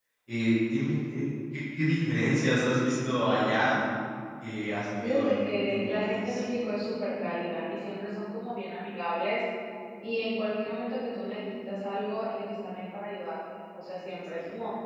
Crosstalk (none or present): present